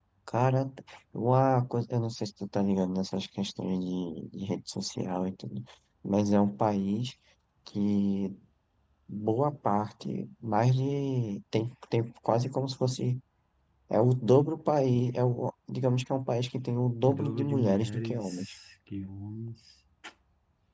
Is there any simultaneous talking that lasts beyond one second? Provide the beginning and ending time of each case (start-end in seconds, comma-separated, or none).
17.1-18.5